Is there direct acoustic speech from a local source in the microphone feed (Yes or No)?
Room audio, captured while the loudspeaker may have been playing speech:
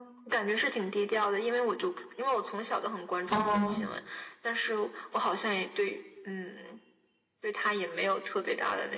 Yes